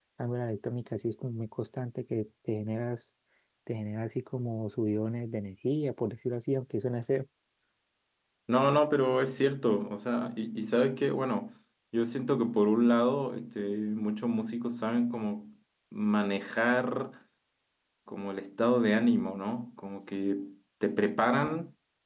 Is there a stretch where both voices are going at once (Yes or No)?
No